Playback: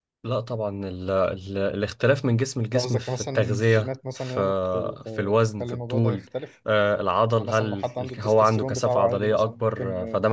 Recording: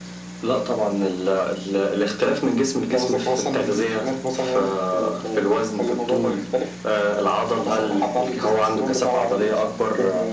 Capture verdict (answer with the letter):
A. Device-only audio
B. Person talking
A